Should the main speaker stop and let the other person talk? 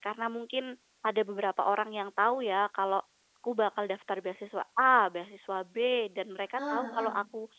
No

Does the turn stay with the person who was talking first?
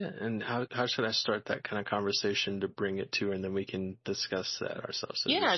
No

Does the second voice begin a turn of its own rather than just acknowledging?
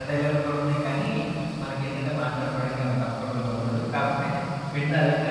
Yes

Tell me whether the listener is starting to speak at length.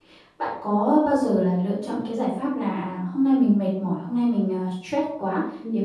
No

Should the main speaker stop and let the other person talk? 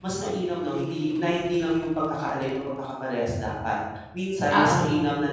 No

